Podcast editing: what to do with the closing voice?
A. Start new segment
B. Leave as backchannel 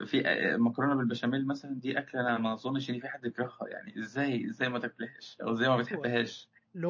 A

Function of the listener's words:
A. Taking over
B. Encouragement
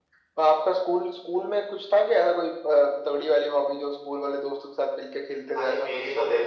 A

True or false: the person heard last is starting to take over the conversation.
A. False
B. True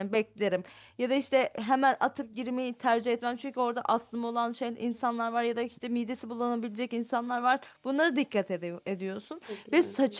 A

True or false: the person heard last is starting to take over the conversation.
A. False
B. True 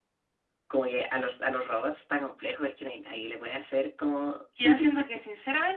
B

